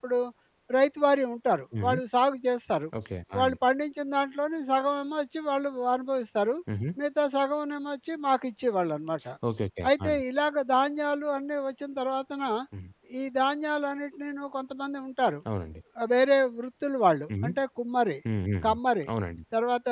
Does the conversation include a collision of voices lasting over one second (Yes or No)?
No